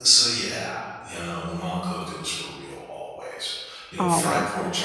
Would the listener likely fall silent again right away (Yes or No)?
Yes